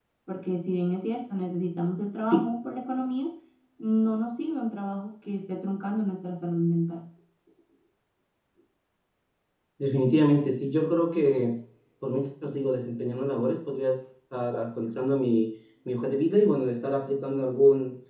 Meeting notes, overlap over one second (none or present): none